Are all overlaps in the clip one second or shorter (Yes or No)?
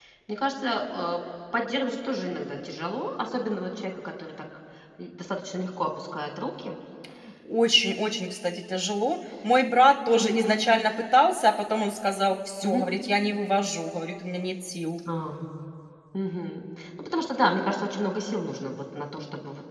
Yes